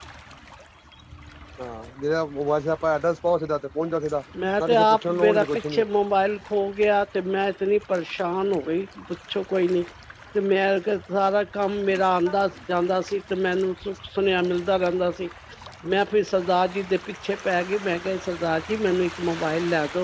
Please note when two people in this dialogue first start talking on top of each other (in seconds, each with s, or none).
4.6 s